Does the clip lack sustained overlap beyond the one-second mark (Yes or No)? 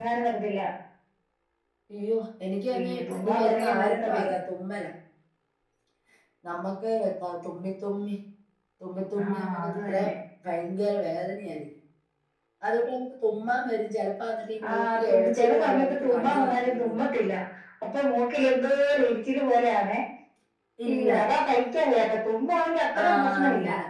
No